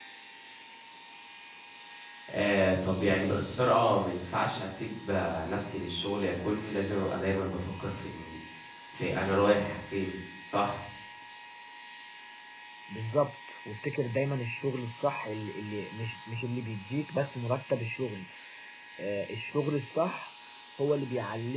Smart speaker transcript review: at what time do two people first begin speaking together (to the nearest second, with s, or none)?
none